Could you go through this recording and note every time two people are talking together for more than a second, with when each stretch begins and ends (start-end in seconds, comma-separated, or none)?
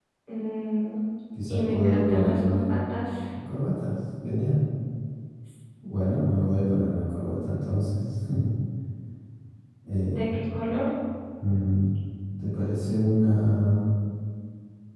1.5-2.8